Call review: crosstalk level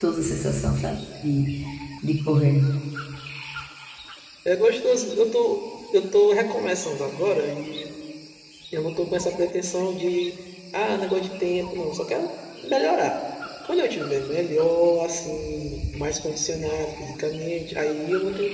none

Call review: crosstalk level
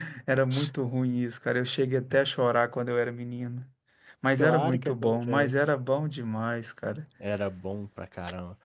present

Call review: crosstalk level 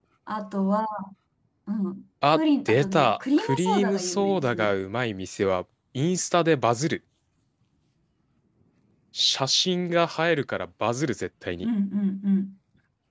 present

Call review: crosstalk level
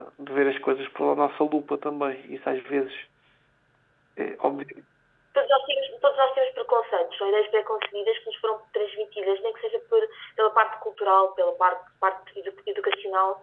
none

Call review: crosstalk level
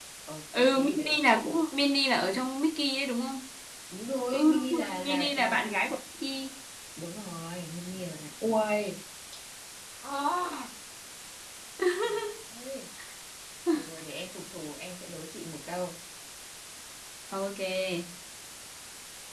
present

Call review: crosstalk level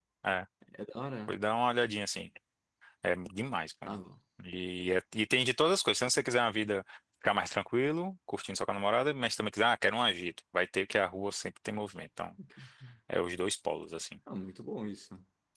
none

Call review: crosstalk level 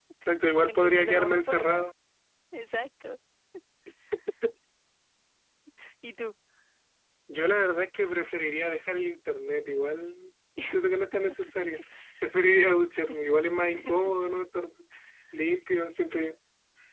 present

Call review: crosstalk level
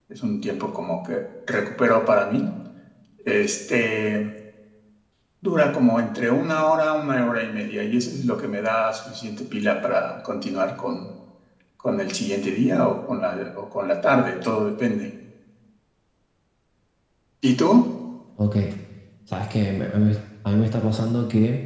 none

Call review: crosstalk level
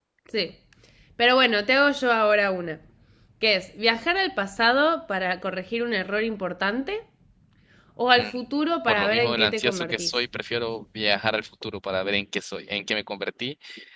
present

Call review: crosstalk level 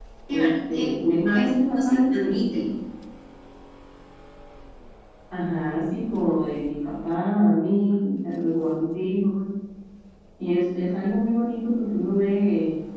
present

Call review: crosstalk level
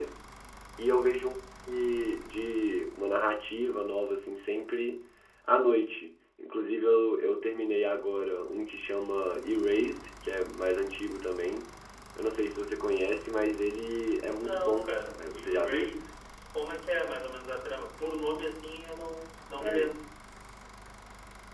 present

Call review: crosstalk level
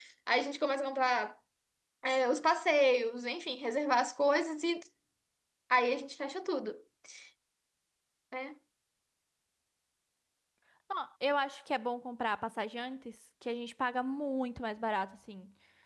none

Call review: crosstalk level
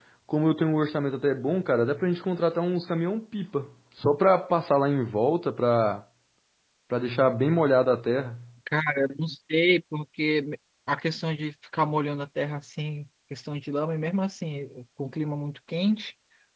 none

